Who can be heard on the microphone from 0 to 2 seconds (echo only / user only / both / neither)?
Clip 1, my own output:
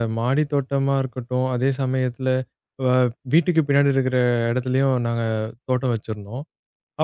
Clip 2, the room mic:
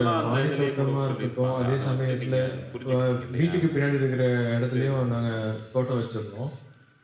both